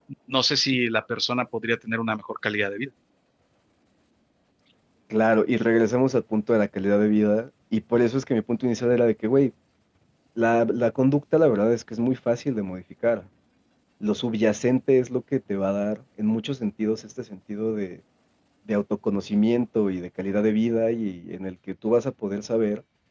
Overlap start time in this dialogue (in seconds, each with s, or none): none